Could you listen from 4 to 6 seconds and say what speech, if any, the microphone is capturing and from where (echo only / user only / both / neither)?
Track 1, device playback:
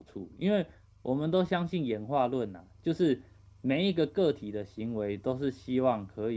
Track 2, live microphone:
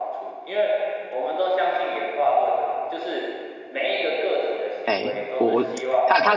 both